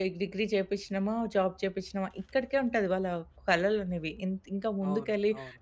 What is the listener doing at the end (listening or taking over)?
listening